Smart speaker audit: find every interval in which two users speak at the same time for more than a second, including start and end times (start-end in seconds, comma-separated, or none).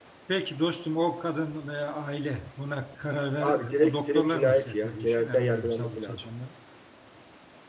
3.4-6.3